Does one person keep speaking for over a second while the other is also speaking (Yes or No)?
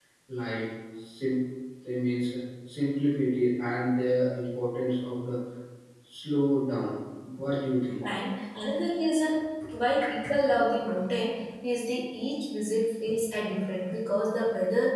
No